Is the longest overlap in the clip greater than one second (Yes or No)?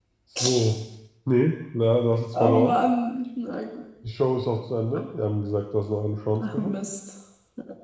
No